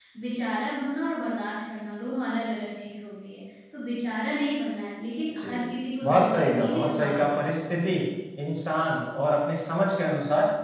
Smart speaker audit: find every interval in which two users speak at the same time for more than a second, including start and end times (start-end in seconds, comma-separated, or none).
6.0-7.4